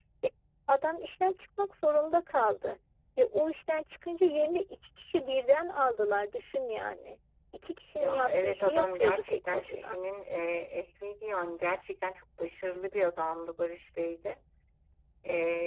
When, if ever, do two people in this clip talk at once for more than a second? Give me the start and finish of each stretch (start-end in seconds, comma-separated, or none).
8.0-10.0